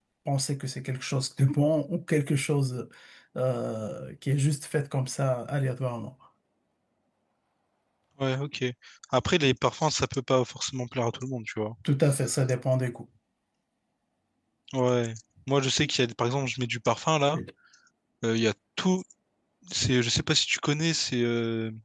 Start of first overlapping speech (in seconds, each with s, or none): none